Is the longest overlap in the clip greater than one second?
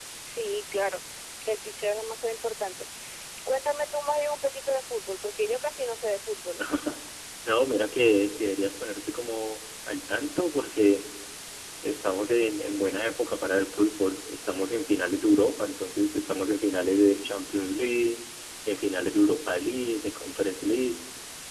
No

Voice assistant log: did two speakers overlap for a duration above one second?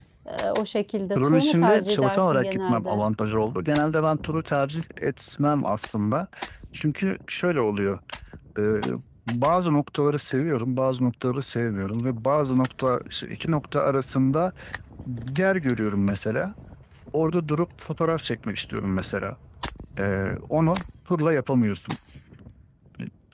Yes, from 1.2 s

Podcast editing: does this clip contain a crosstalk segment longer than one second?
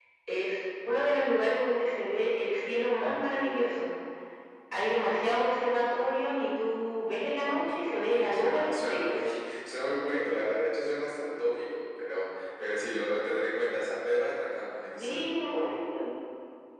Yes, from 7.4 s

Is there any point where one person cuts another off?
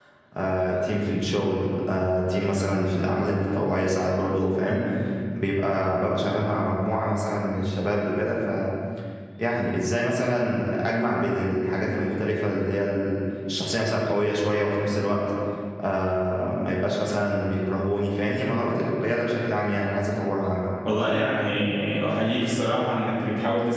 No

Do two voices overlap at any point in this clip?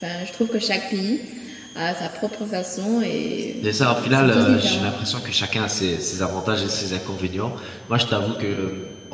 Yes, from 3.6 s

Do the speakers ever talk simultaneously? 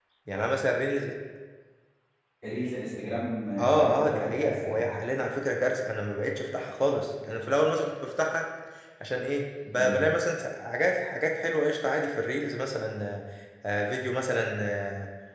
Yes, from 3.6 s

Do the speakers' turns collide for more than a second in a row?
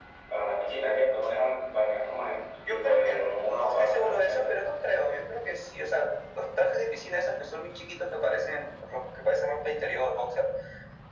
Yes, from 2.6 s

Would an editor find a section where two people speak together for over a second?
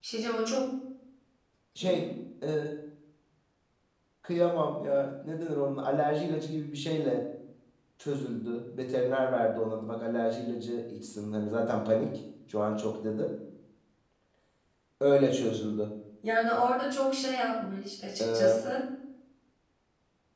No

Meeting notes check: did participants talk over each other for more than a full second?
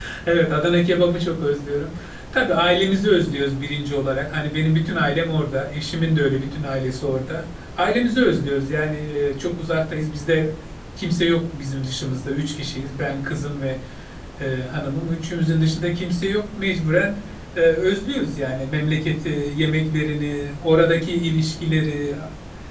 No

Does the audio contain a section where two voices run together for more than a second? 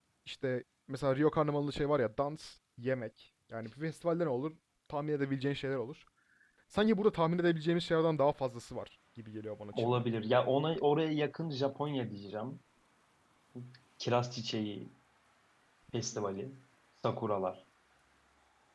No

